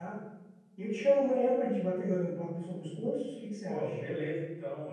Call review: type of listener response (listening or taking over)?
taking over